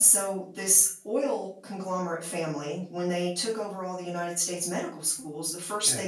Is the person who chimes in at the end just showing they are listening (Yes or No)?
Yes